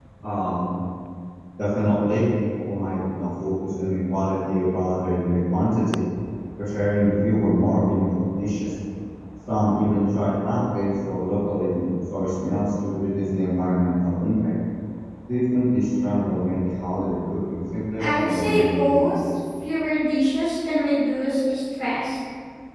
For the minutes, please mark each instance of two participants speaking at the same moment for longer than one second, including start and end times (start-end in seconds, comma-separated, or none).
18.0-19.3